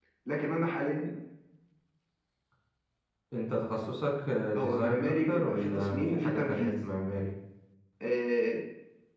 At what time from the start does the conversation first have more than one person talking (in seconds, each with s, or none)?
4.5 s